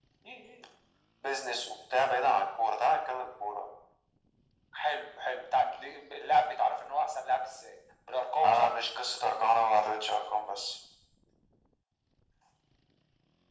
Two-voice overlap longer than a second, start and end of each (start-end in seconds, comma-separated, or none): none